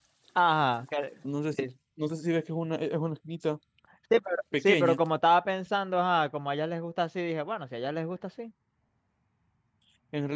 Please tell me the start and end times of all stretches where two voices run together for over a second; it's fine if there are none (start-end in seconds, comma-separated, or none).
none